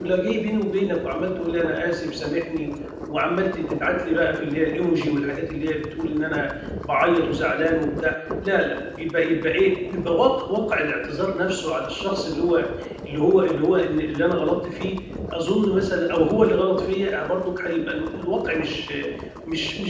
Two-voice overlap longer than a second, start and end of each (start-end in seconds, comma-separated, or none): none